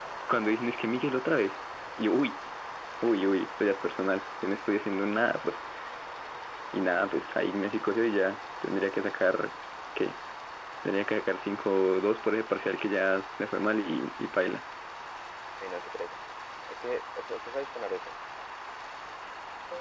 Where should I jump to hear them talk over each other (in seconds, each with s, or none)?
none